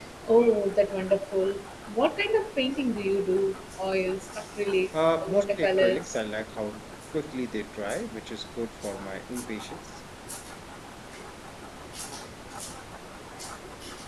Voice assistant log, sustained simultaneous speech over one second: present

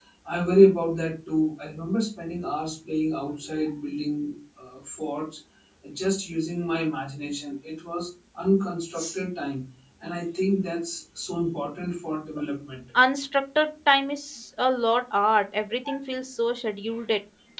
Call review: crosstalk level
none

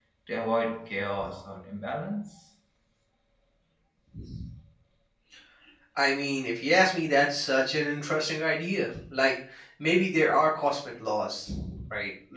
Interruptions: none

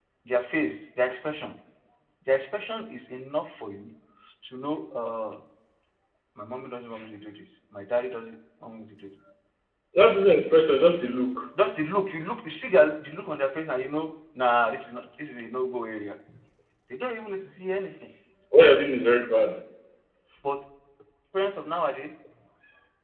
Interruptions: none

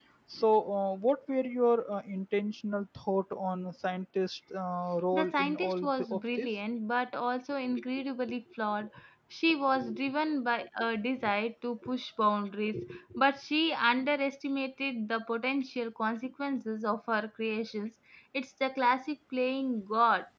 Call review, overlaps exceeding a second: present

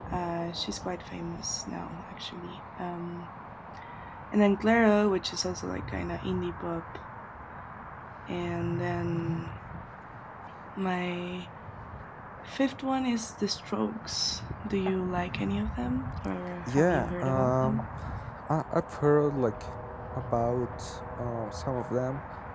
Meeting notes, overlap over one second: present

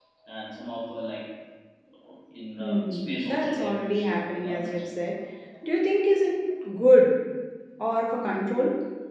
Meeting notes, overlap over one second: present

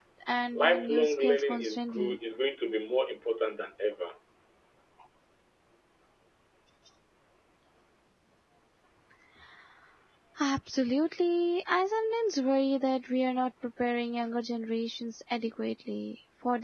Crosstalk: present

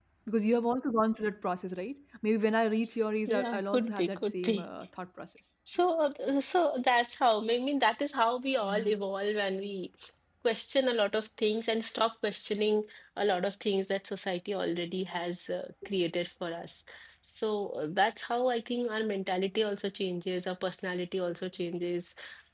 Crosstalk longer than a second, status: present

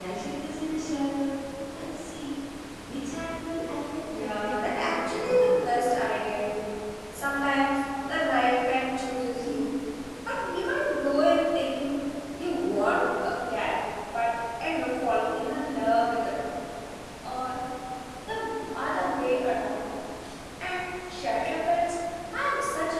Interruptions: present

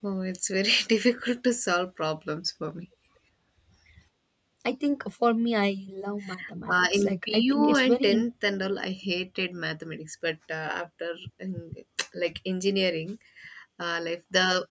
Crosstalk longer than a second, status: present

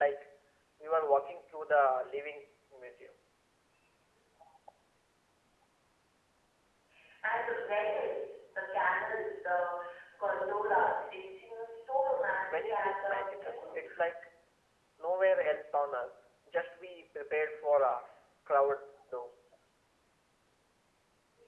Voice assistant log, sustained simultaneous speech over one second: present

